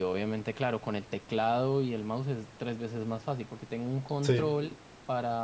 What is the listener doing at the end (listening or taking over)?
listening